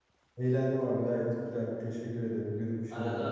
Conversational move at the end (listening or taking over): taking over